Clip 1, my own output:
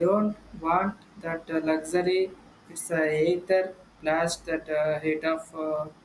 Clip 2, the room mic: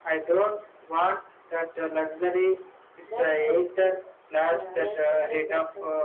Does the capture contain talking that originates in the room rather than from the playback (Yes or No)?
Yes